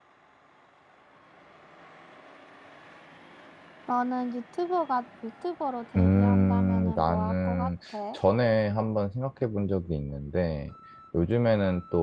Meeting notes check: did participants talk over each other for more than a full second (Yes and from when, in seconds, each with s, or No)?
Yes, from 6.0 s